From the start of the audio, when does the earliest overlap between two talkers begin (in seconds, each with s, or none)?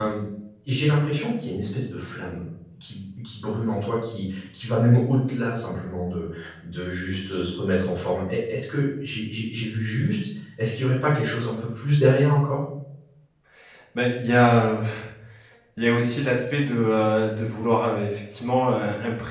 none